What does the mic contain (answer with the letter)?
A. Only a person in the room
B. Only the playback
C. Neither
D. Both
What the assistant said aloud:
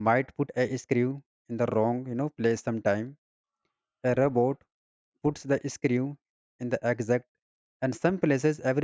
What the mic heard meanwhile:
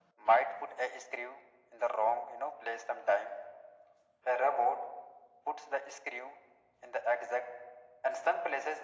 B